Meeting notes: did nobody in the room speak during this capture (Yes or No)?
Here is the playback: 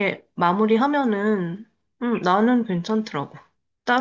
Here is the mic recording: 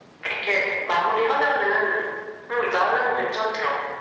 Yes